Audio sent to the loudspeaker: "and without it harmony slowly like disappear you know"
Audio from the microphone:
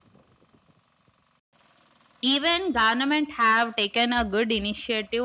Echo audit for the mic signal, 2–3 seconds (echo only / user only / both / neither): user only